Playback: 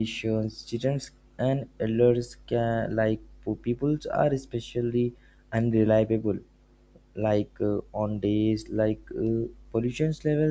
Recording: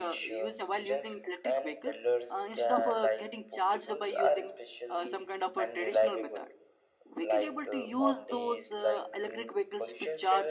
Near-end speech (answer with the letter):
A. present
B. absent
A